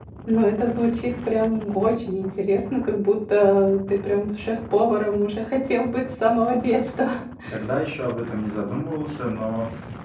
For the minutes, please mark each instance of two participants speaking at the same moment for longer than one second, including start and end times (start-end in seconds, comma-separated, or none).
none